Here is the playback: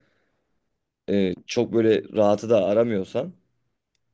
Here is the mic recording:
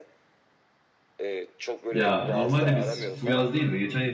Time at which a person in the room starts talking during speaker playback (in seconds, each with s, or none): 1.9 s